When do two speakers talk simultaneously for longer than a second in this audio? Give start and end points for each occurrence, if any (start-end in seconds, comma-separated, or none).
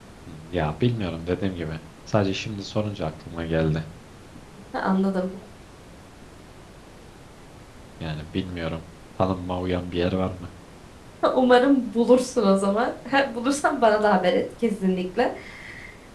none